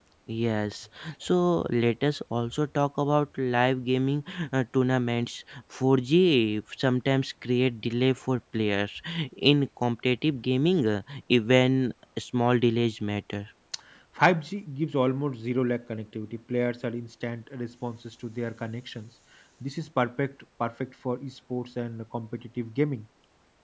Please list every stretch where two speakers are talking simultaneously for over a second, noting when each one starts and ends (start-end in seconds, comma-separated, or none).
none